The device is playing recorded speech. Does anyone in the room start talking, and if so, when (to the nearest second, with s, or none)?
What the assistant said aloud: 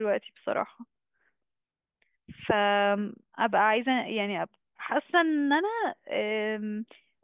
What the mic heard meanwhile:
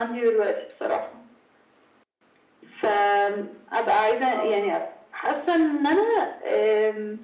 4 s